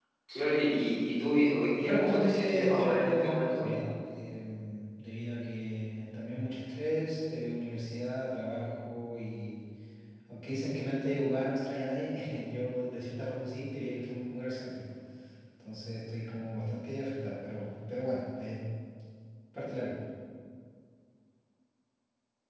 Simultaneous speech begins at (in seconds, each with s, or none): 1.8 s